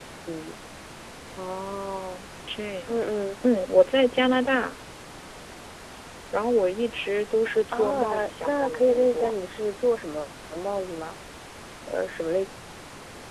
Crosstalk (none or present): present